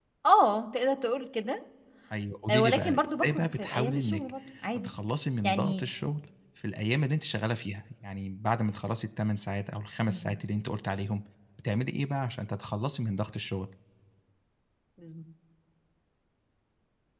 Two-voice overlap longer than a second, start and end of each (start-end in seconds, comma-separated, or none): 2.5-4.2